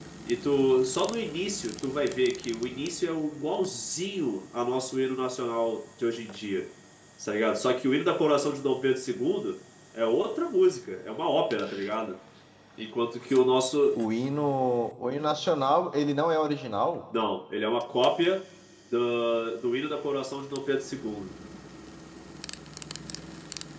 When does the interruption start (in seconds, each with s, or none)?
none